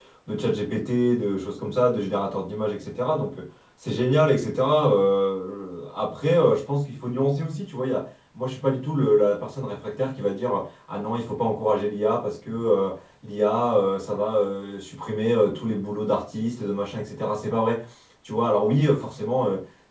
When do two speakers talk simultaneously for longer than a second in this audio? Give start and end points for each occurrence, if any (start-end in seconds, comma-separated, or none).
none